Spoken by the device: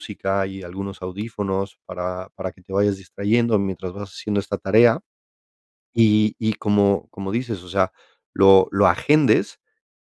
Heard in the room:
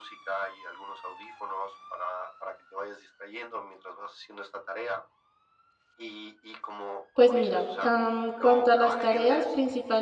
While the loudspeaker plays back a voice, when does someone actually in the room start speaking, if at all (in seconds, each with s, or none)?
7.1 s